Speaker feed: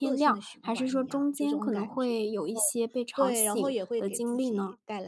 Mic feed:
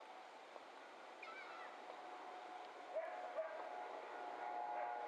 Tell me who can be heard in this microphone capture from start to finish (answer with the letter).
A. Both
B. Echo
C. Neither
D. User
C